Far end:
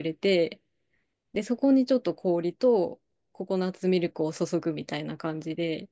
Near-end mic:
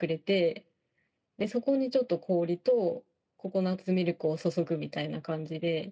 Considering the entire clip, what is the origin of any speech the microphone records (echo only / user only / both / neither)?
echo only